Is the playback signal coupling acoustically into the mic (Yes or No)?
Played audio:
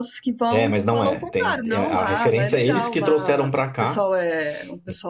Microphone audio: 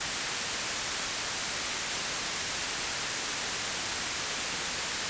No